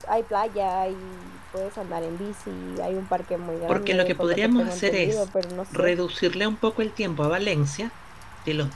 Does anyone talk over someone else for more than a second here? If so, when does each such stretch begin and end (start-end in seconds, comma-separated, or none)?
3.7-5.2